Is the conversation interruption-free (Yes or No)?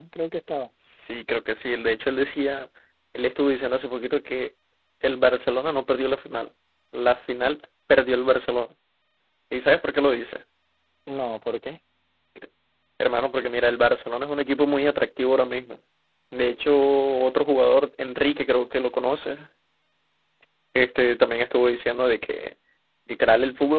Yes